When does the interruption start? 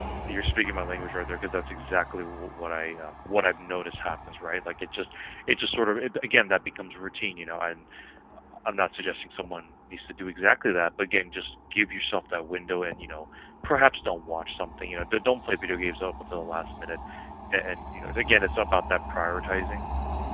none

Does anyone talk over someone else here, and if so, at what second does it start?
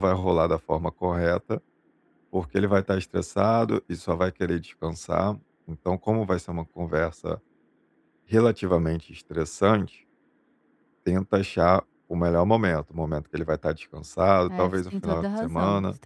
14 s

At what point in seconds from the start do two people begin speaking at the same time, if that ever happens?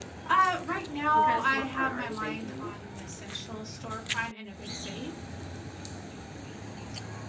1 s

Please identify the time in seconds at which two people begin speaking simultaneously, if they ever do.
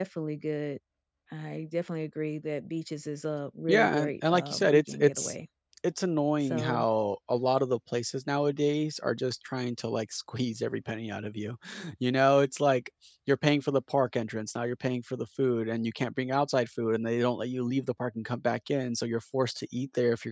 4 s

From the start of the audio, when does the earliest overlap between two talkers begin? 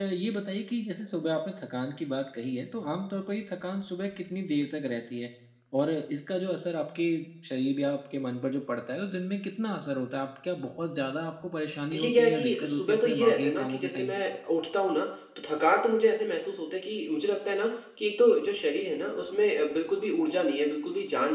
12 s

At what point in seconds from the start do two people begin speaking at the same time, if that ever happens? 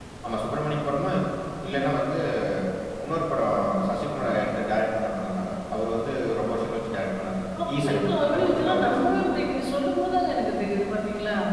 8 s

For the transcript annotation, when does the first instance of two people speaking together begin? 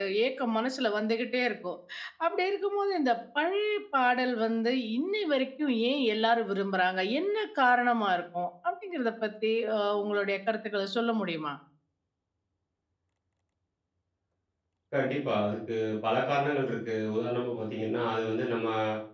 none

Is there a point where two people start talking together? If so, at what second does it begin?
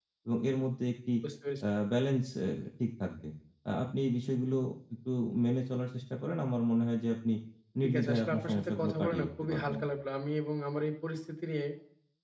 8 s

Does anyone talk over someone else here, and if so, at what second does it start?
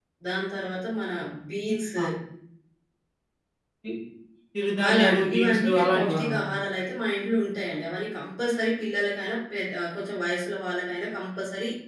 5 s

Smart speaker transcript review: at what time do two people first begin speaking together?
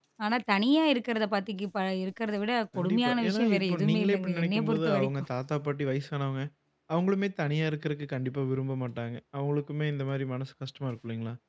3 s

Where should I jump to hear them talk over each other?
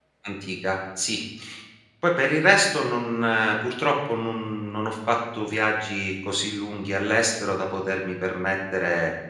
none

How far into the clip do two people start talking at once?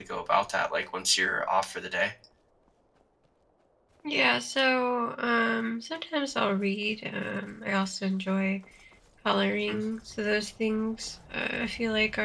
none

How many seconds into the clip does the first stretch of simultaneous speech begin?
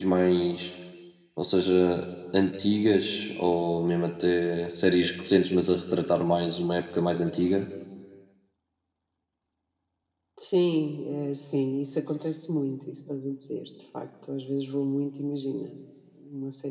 none

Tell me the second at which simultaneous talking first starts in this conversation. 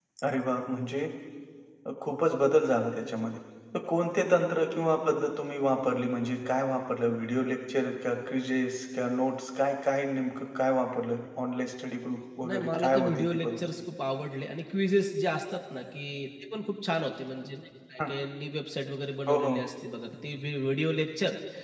12 s

